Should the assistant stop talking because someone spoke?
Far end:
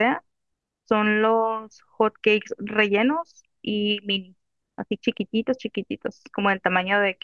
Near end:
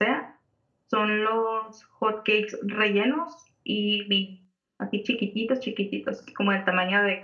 No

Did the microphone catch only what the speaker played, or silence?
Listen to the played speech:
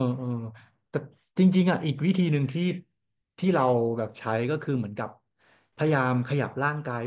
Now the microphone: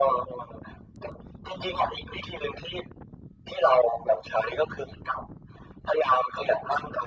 Yes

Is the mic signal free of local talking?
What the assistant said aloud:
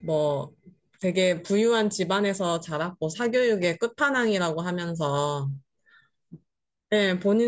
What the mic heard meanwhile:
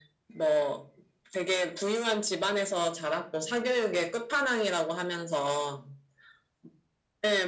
Yes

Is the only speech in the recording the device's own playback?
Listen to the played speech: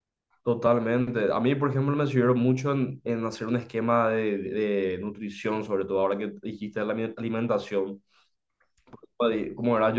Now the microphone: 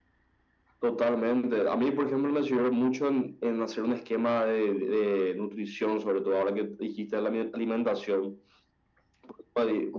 Yes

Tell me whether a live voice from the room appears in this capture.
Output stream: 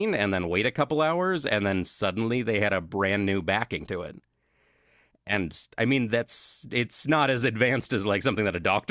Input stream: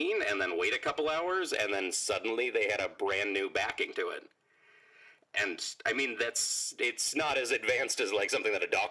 No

